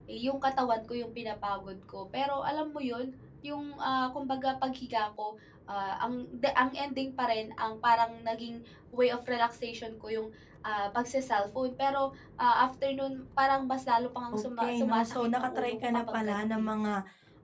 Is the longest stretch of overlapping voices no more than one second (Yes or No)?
No